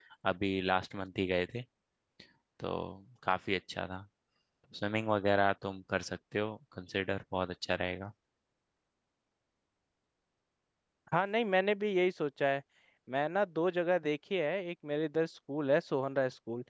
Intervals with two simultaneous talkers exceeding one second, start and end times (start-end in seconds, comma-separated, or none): none